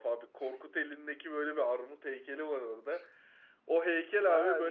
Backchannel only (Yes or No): Yes